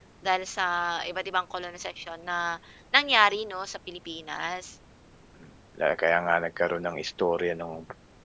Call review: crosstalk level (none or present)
none